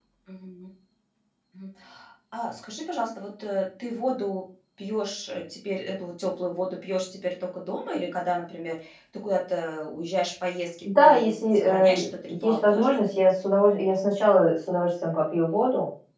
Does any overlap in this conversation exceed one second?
Yes, from 10.8 s

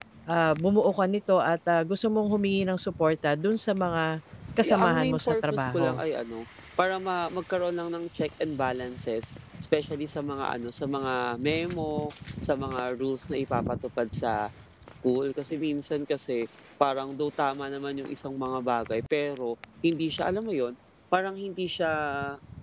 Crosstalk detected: Yes, from 4.6 s

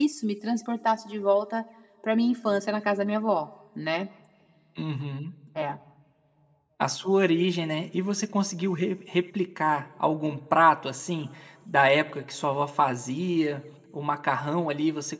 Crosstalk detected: No

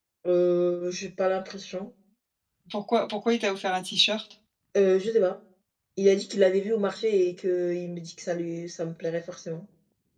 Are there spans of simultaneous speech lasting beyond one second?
No

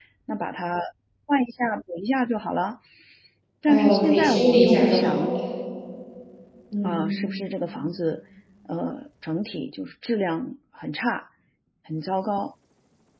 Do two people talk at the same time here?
Yes, from 3.7 s

